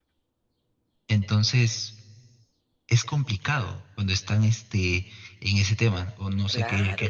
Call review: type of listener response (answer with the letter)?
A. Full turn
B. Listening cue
A